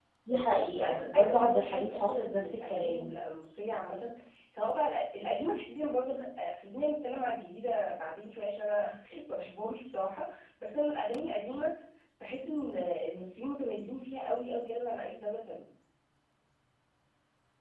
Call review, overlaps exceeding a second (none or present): present